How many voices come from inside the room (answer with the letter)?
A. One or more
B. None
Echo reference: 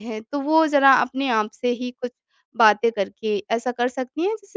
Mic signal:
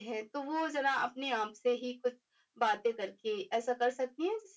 B